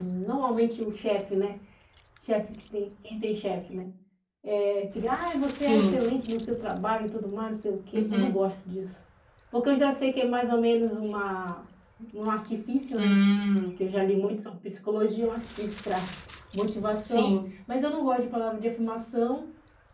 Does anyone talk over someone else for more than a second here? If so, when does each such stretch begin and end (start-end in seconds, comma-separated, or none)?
none